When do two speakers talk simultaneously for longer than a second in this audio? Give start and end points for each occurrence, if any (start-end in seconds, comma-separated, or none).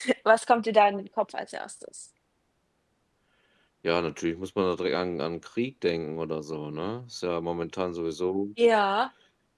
none